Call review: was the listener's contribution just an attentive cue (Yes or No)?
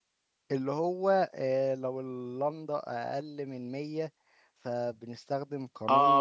No